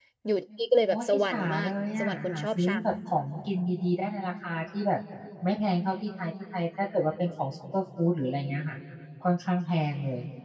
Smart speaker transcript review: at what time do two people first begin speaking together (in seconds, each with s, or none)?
0.9 s